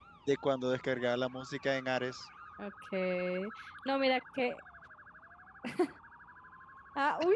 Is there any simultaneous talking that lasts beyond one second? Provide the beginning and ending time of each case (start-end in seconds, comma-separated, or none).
none